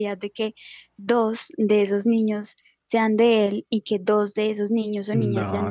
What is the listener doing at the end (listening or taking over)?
taking over